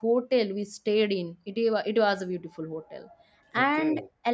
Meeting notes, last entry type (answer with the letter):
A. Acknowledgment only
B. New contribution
A